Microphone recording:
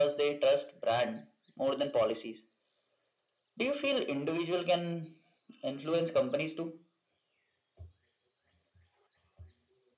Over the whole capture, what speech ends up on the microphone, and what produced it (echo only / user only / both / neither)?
echo only